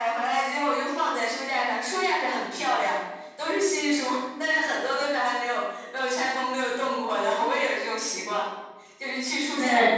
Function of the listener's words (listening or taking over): listening